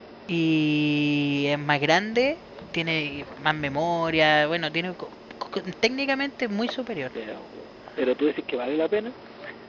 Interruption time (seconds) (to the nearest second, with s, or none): none